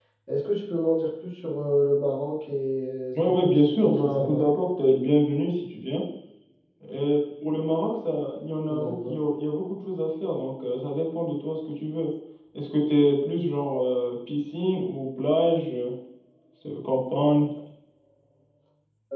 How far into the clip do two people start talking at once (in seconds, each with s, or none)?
3.1 s